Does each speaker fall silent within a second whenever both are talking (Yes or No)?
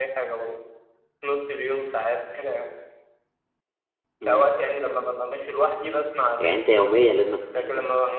Yes